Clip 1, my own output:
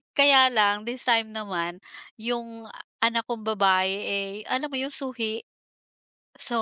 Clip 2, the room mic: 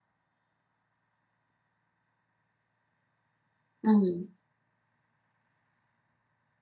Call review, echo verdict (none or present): none